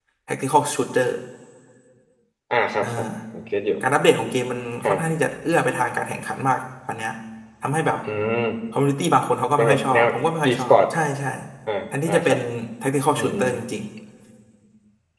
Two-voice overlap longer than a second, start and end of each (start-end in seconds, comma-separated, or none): 9.6-10.8